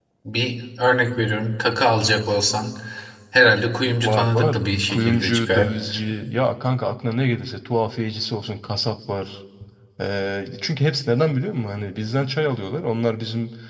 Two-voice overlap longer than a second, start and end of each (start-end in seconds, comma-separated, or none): 4.0-5.7